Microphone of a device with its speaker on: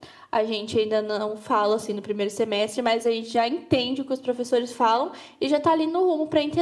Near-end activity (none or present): none